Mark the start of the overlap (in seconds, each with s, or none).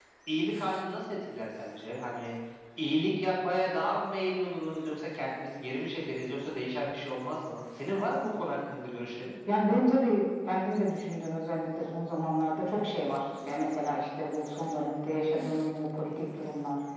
none